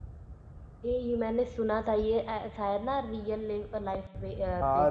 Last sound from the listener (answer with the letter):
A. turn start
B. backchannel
A